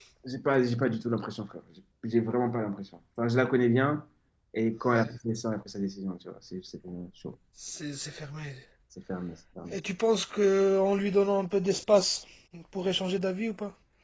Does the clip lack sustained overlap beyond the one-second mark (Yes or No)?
Yes